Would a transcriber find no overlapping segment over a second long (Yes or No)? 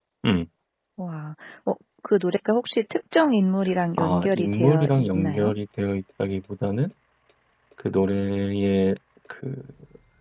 No